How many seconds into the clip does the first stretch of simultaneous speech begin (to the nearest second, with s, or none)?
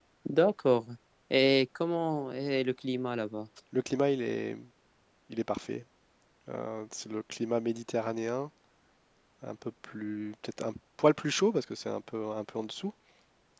none